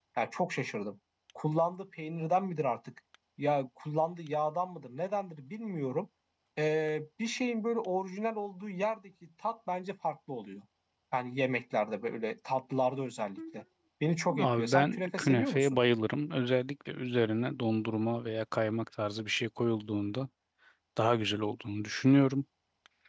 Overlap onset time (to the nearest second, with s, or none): 14 s